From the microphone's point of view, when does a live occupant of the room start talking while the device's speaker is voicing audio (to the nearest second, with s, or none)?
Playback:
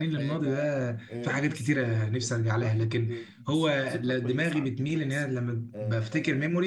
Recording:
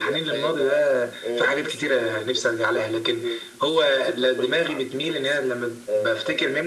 none